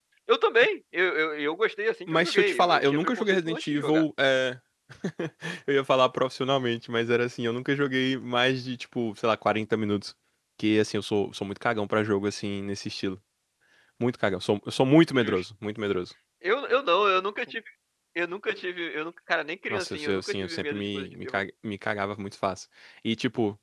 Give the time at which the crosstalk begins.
2 s

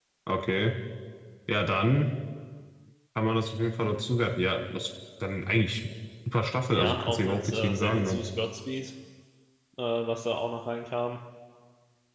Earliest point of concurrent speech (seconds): 7 s

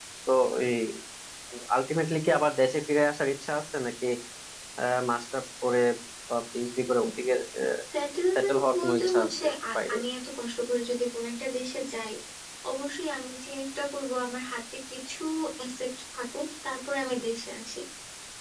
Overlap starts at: 8 s

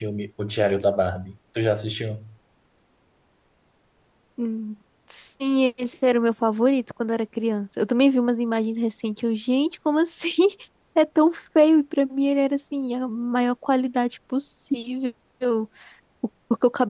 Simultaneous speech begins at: none

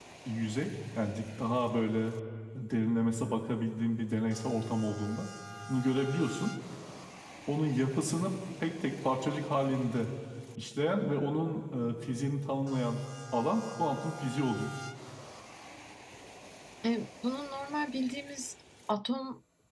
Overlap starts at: none

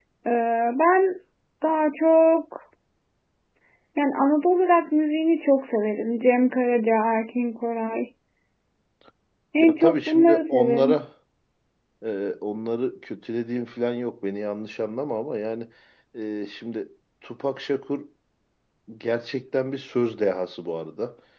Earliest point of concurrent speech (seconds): 10 s

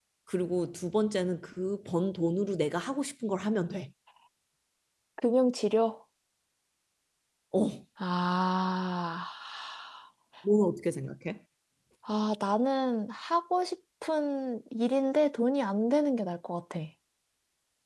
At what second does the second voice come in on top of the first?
none

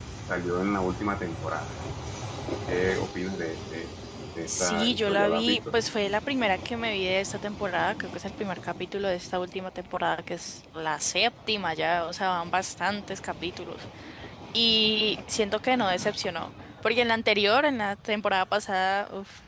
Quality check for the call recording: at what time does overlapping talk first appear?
4 s

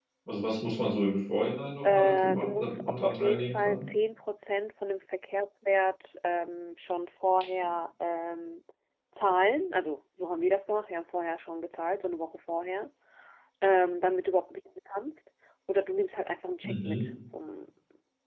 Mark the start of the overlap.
2 s

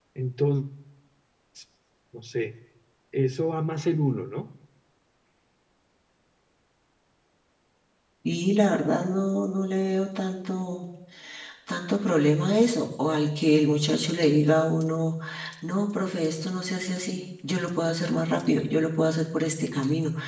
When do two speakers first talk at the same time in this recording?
none

